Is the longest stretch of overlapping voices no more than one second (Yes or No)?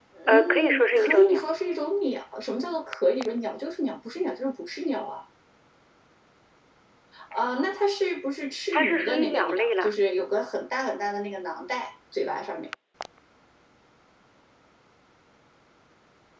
No